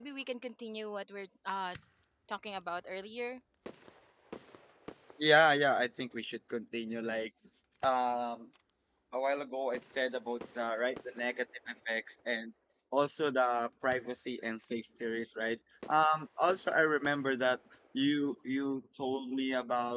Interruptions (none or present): none